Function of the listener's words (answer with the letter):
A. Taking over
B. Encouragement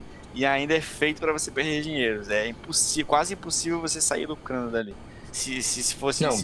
B